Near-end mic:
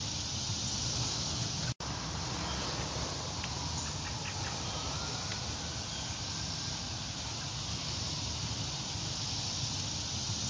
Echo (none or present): none